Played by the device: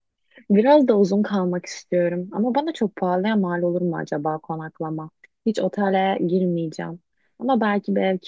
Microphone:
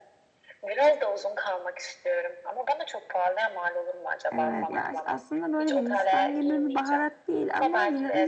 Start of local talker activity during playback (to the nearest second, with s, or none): 4 s